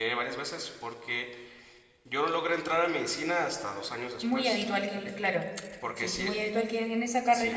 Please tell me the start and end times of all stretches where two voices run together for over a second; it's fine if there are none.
none

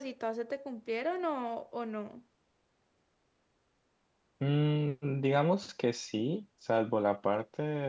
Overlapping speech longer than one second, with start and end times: none

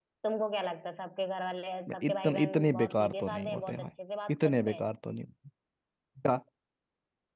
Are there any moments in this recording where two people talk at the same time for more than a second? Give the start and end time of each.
1.9-3.9

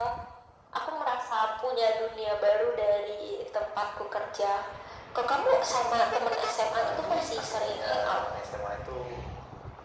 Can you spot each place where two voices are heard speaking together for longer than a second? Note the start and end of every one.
6.8-8.2

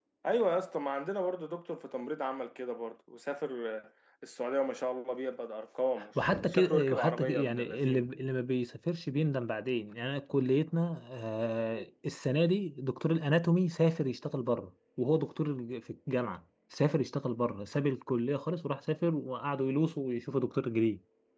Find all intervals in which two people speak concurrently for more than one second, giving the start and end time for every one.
6.3-8.1

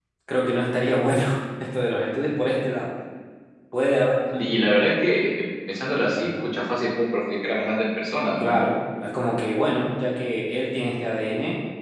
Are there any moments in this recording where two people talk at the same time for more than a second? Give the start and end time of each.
none

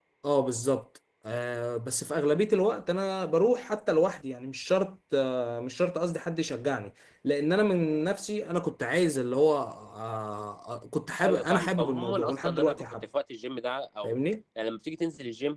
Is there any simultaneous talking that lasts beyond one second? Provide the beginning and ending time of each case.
11.2-12.8

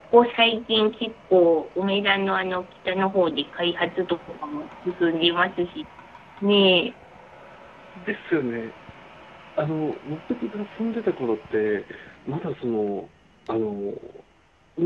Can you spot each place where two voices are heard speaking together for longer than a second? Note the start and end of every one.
none

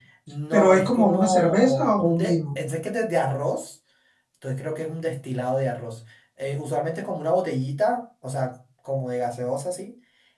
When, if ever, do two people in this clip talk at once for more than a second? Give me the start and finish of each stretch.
0.5-2.4

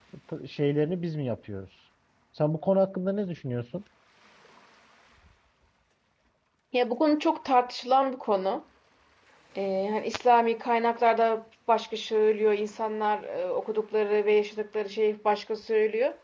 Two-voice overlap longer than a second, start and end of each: none

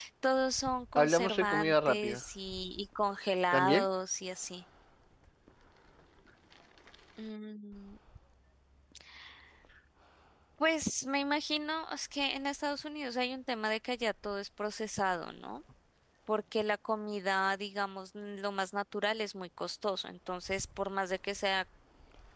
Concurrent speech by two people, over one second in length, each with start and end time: 0.9-2.2

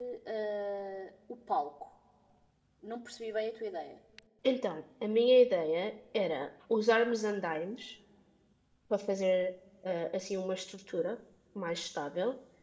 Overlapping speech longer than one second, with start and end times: none

